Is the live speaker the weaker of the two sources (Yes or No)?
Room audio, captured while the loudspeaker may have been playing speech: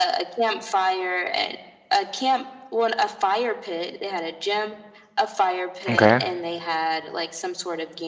No